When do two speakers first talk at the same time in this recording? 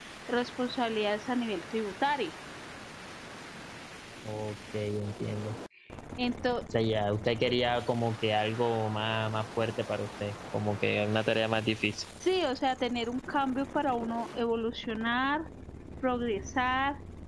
none

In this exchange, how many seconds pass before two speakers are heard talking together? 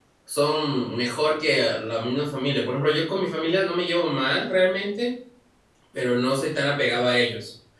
none

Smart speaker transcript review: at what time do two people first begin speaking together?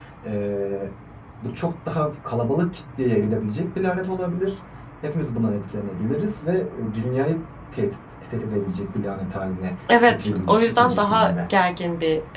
9.9 s

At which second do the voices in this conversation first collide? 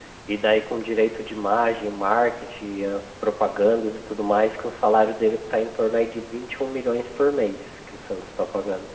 none

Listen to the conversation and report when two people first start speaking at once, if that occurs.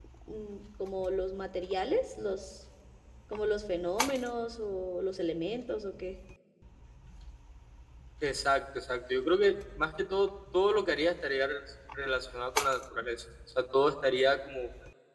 none

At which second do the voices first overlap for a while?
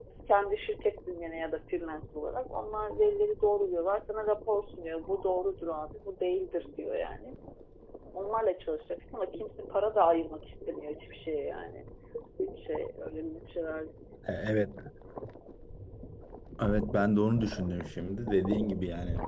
none

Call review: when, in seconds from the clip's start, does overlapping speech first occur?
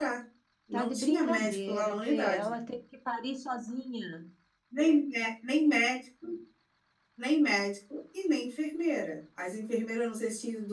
0.7 s

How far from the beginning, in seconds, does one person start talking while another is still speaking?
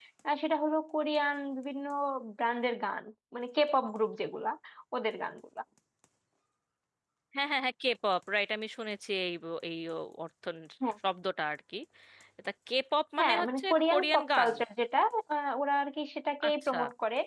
13.2 s

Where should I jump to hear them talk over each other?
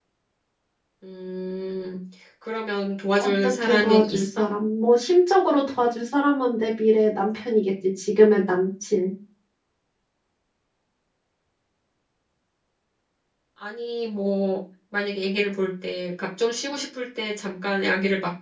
3.2 s

